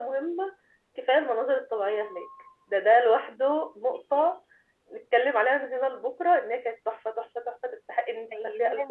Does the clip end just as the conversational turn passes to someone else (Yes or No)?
Yes